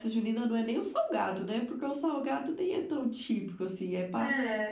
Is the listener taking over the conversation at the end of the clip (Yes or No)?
No